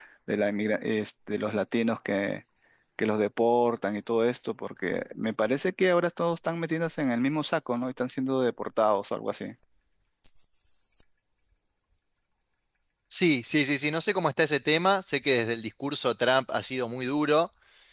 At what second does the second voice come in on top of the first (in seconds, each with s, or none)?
none